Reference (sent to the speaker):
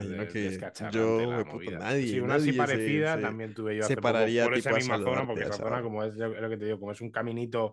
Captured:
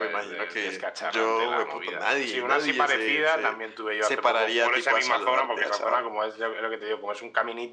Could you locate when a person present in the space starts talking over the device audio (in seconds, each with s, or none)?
none